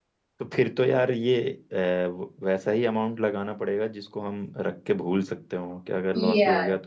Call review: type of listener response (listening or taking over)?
taking over